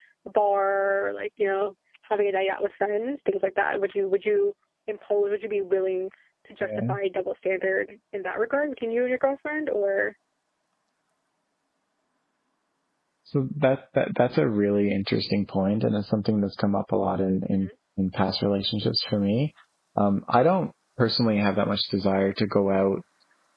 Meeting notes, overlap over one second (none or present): none